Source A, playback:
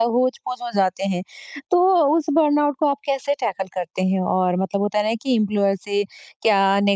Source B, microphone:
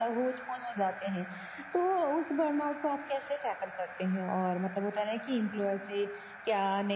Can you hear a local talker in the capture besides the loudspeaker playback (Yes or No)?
No